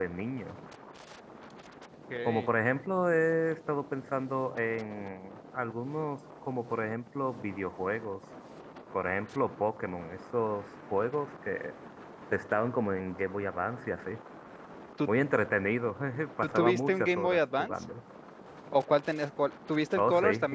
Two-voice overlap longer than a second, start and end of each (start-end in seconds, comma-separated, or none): 16.4-17.7